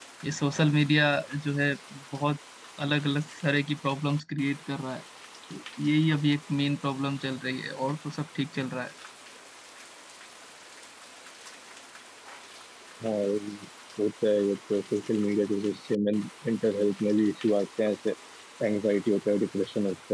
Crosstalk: none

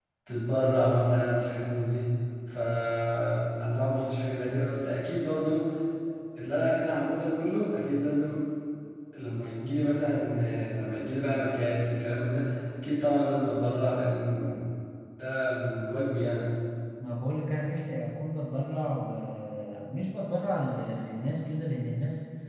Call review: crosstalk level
none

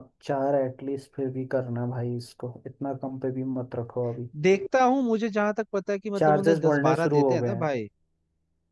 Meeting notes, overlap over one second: present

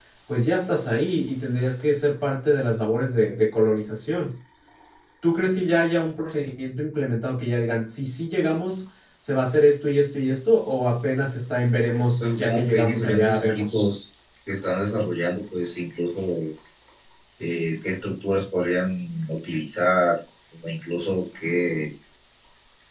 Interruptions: present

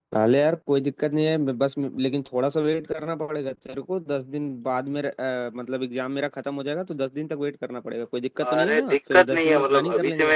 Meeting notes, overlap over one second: present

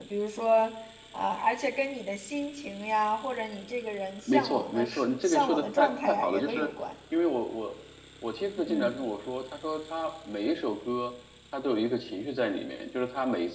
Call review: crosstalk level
present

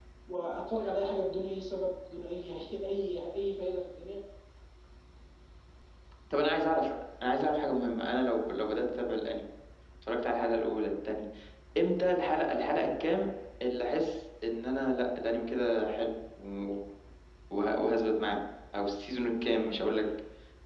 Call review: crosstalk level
none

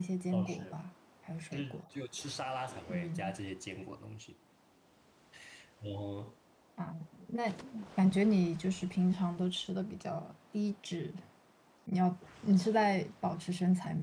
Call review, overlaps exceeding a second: none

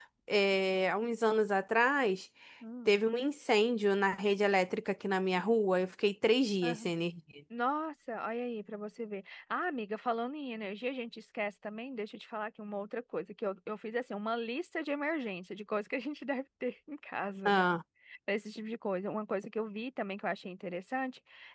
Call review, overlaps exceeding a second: none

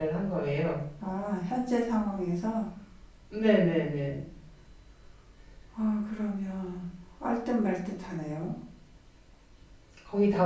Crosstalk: none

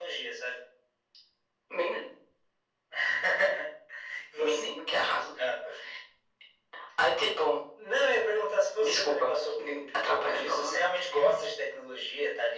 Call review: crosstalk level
present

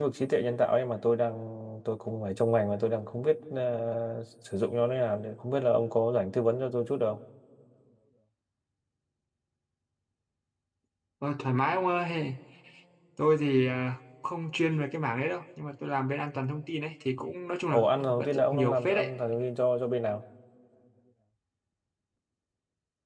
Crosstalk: present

